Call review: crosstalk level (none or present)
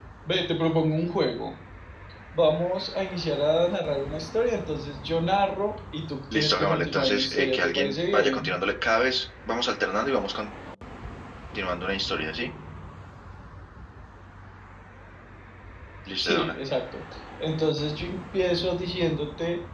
present